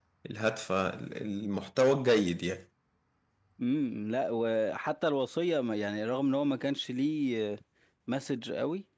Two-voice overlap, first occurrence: none

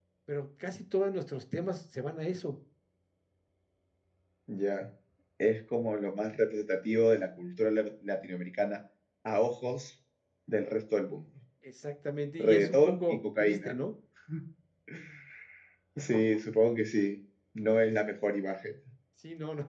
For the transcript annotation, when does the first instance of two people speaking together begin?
12 s

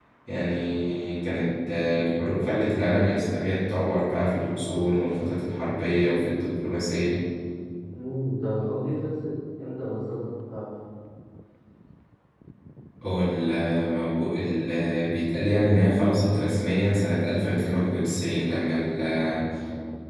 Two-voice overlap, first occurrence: none

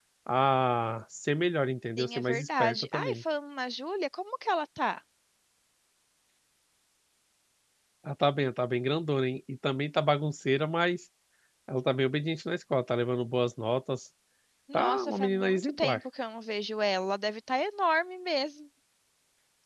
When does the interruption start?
2 s

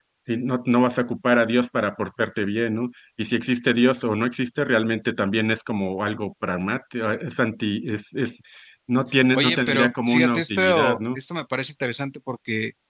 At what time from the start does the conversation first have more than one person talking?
9 s

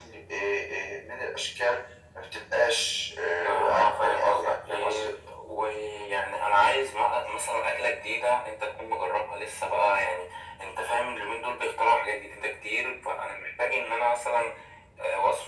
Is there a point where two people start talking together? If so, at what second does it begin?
3 s

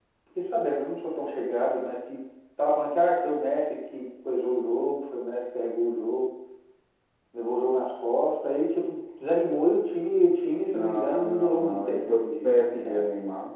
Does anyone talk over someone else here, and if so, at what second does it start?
11 s

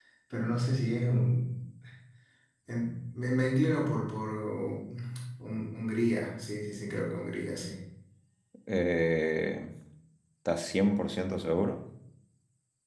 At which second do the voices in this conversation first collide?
none

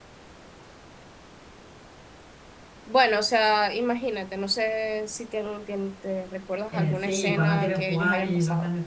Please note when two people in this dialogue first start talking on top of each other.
7 s

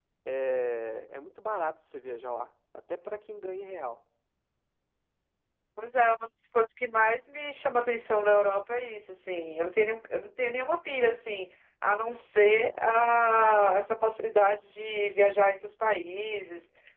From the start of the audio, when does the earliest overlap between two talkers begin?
none

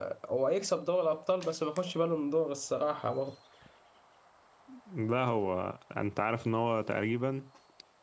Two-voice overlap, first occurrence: none

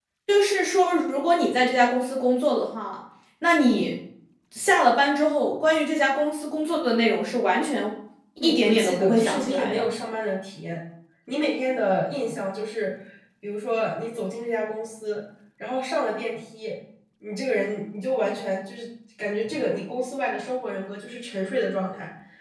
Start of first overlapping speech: 8 s

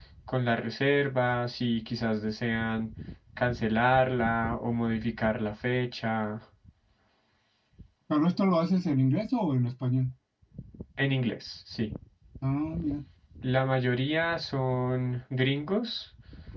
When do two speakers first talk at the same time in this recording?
none

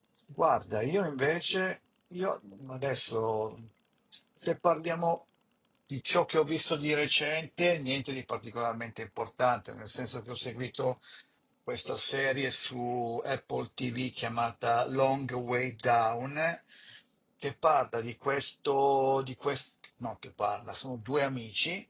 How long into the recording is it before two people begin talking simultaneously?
none

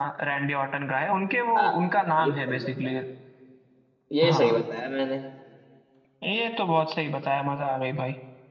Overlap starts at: 2 s

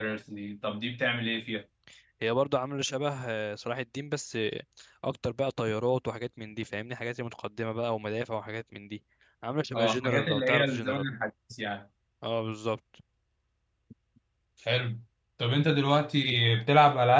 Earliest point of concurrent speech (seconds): 10 s

